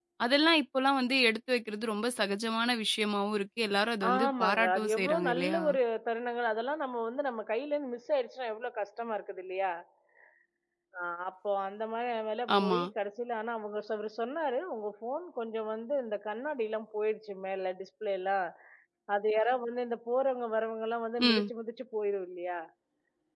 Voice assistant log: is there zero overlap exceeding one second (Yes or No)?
No